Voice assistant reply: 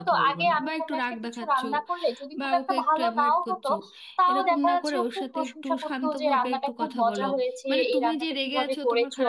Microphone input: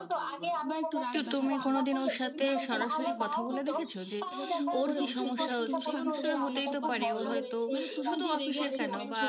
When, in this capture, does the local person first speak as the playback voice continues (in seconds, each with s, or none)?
1.1 s